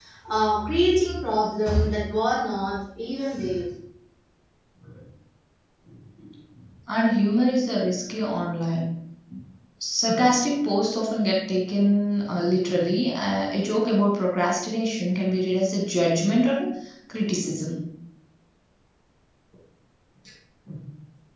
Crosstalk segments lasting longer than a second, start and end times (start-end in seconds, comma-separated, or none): none